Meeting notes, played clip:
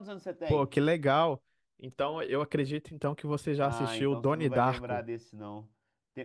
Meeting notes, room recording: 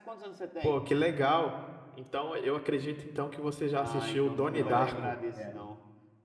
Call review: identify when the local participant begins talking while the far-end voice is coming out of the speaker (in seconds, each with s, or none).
4.3 s